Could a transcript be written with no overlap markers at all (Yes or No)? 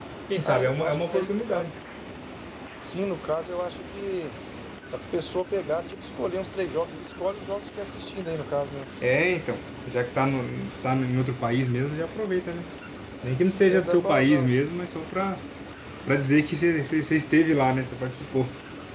No